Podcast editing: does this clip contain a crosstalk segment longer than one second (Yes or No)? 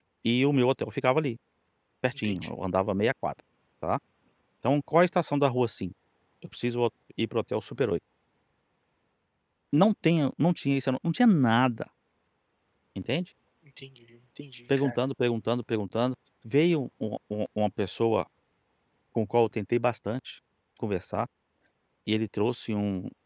No